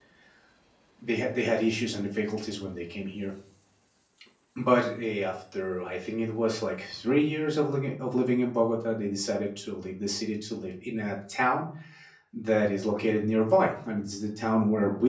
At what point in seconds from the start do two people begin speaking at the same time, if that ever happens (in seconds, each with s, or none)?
none